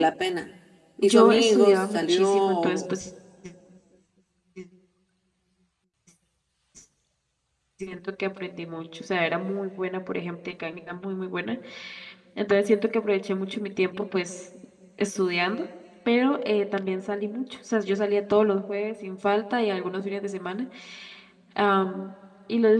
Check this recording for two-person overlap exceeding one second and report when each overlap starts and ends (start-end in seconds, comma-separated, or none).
1.0-2.9